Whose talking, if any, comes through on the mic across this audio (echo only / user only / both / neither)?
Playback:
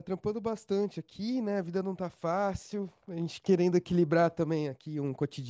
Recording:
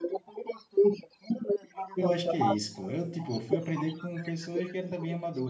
both